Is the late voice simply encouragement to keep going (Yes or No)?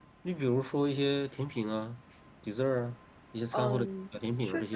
No